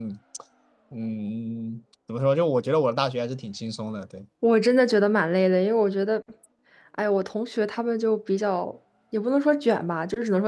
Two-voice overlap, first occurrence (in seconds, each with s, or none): none